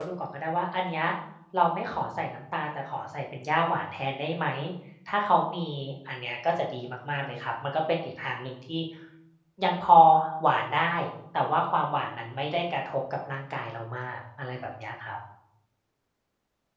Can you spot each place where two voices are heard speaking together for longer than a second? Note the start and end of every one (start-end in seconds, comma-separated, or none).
none